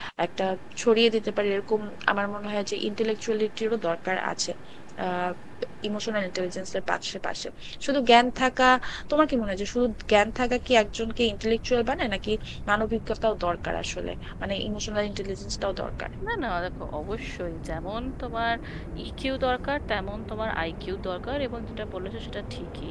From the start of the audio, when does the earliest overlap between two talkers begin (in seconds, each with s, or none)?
none